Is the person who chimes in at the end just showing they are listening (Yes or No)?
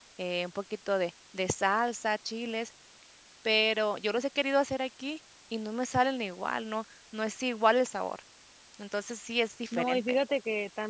No